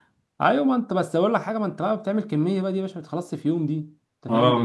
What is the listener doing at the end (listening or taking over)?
taking over